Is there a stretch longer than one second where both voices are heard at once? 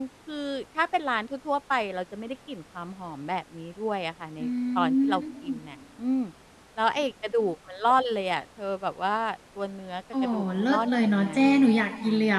Yes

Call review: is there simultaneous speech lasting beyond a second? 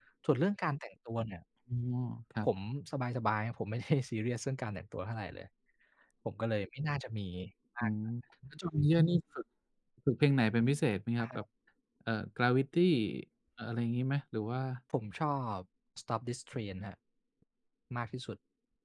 No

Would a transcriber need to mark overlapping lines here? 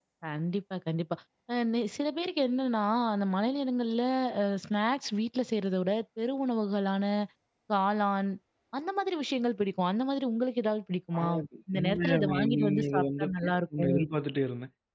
Yes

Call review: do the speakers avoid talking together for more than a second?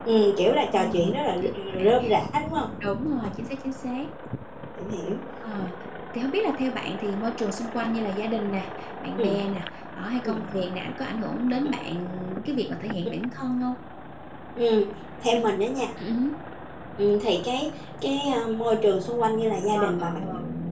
No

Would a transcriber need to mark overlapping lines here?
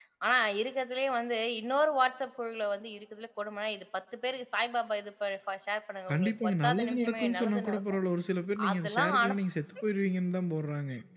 Yes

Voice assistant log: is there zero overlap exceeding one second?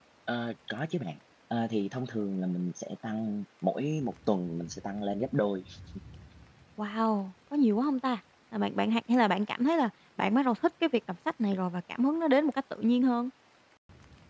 Yes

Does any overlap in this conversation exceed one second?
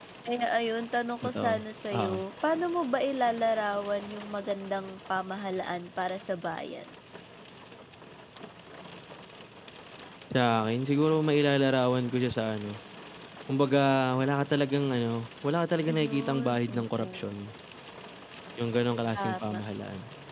Yes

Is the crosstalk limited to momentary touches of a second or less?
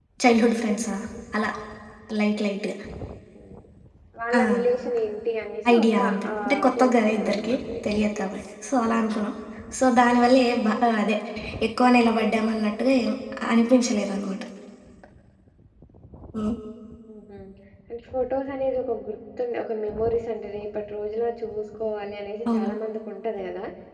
No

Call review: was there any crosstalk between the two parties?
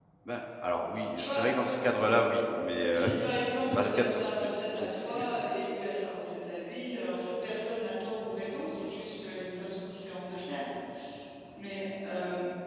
Yes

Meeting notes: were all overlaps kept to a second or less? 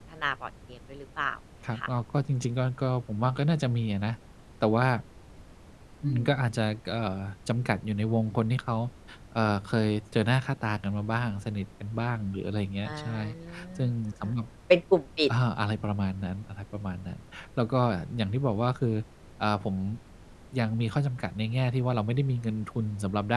Yes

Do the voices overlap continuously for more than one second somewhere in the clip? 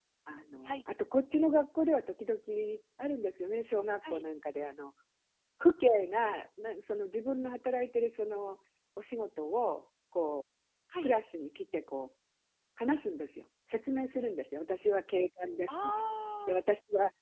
No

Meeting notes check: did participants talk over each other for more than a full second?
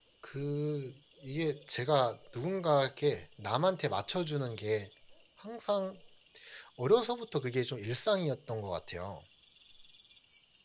No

